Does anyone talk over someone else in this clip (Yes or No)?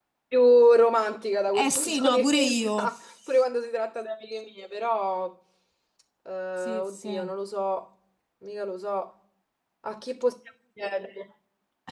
Yes